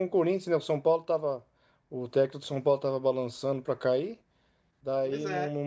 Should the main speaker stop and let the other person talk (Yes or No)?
No